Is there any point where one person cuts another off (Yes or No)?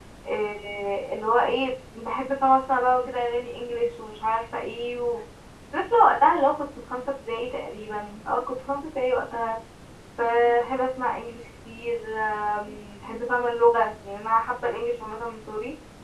No